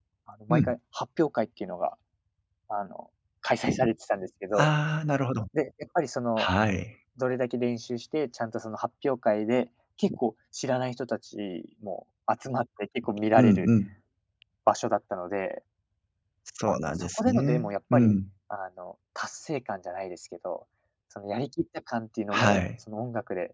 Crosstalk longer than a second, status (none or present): present